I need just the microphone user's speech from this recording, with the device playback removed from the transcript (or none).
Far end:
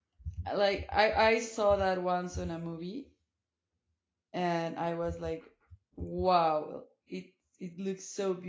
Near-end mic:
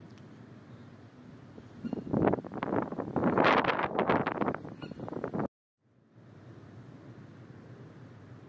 none